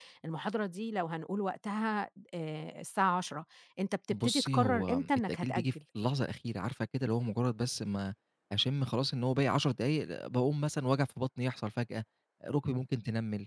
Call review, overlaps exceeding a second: present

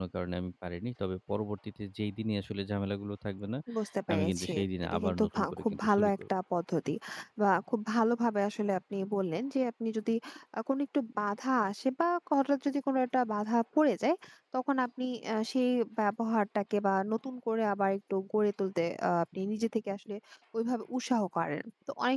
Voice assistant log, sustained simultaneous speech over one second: present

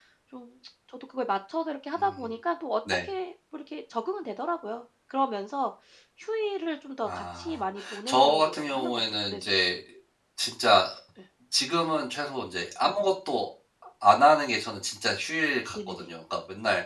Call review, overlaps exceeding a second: present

